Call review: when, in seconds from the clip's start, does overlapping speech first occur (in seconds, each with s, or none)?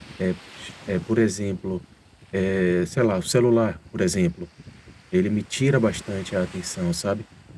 none